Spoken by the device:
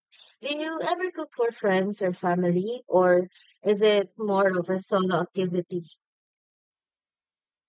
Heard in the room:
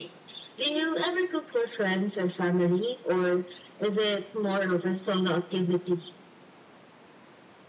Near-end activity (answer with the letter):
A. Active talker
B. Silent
B